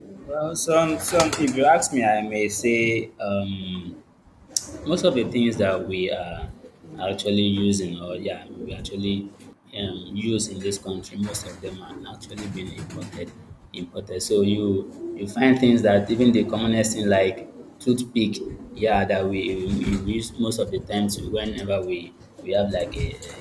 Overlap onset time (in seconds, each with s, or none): none